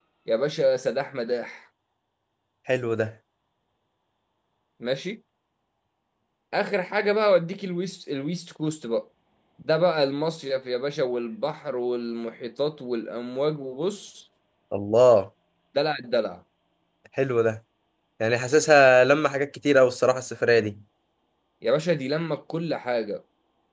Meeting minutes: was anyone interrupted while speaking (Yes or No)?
No